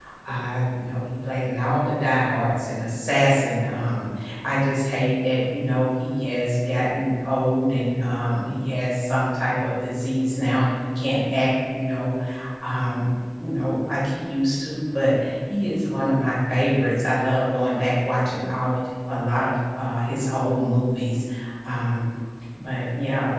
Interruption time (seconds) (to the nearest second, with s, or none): none